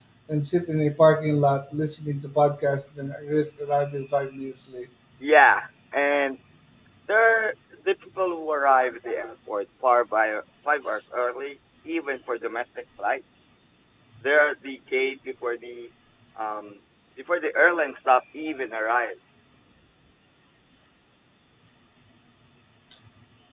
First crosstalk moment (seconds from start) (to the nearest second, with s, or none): none